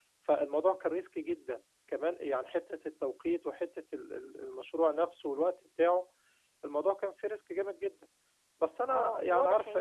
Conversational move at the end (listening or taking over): taking over